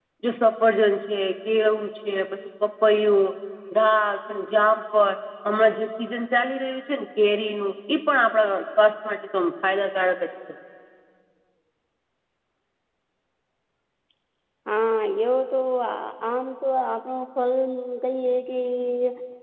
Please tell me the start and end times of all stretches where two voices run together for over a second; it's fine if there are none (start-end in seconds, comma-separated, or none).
none